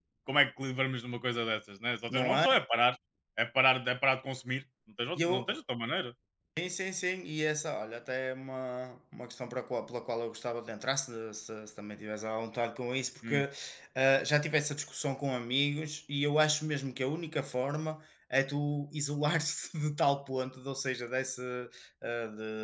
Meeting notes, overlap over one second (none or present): none